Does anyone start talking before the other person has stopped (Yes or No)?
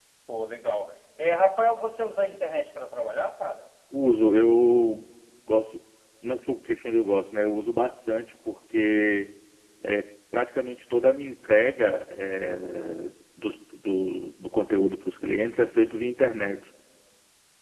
No